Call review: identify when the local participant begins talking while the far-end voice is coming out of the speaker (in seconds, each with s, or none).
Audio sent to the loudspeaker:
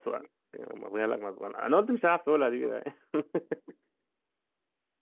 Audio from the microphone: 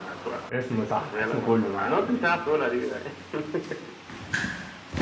0.5 s